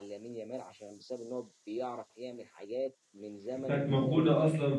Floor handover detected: Yes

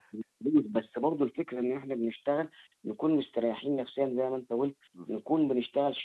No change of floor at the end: Yes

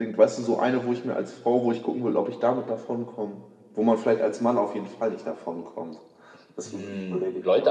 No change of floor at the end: No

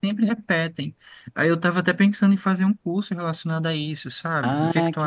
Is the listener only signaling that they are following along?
No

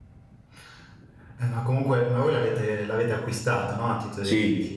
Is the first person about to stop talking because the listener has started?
Yes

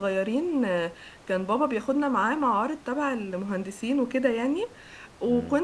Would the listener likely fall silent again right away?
Yes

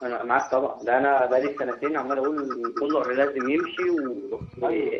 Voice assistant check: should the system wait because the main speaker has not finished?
No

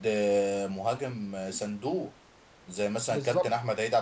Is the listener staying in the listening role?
Yes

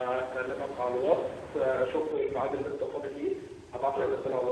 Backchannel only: Yes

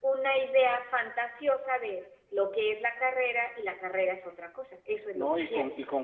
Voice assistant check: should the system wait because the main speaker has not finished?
No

